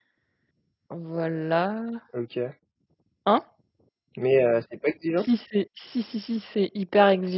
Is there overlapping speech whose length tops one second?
No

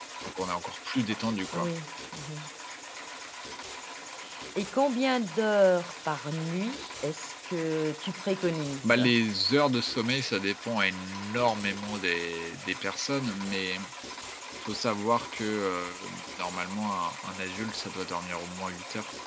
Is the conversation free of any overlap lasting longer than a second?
Yes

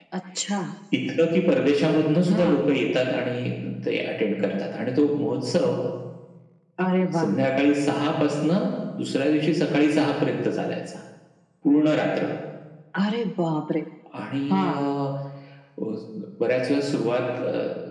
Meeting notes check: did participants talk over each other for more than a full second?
No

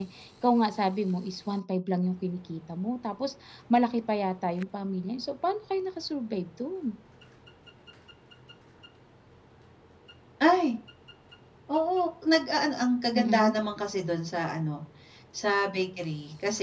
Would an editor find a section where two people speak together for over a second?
No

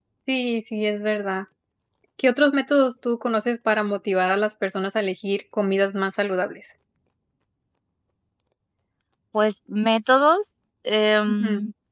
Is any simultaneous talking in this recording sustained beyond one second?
No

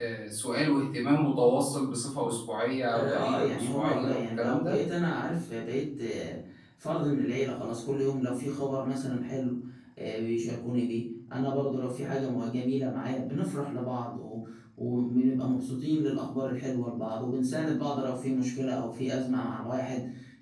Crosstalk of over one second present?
Yes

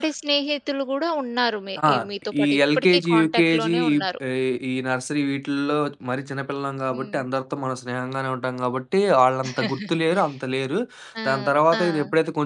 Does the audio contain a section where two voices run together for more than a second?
Yes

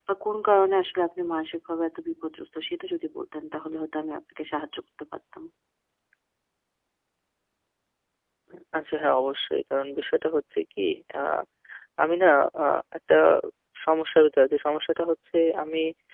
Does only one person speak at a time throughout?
Yes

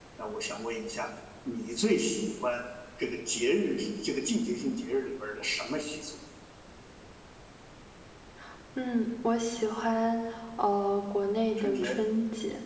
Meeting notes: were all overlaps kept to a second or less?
Yes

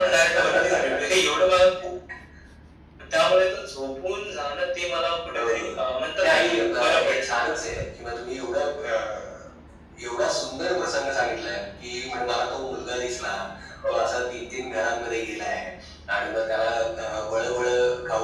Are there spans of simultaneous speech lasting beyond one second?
Yes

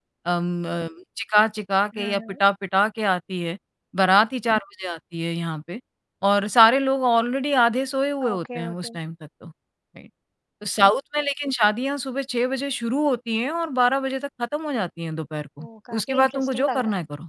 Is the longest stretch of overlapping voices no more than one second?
No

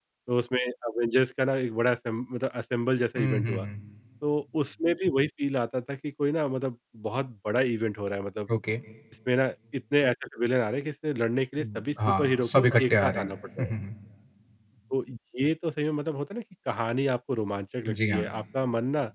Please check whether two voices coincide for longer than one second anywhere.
Yes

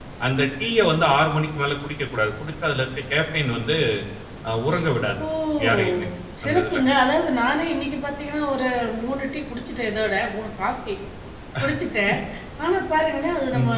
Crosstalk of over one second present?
No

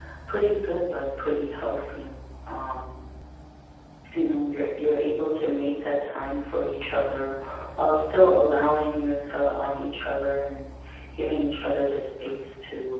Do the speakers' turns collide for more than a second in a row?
No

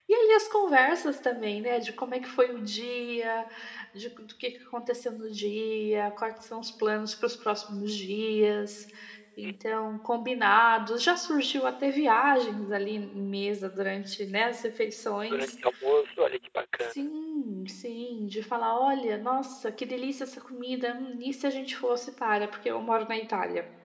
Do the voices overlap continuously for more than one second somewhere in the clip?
No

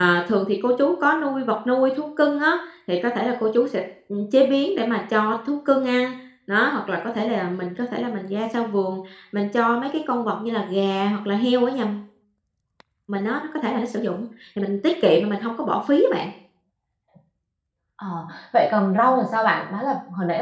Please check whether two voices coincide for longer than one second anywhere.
No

